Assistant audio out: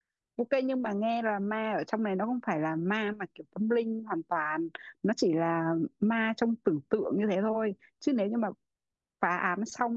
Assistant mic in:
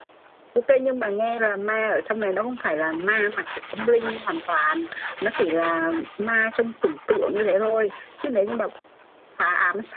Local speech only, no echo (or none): none